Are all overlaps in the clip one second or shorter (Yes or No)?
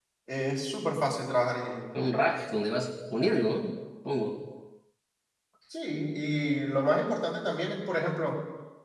Yes